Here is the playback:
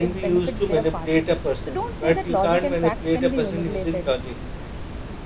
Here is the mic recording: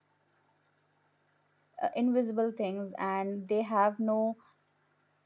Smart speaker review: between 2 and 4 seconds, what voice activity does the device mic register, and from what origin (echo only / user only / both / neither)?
user only